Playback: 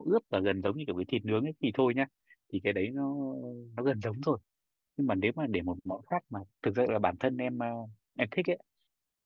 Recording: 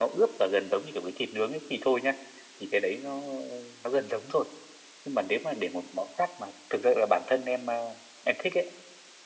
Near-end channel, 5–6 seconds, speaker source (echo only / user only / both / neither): echo only